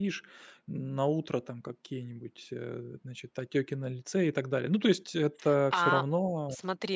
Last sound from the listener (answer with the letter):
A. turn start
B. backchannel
A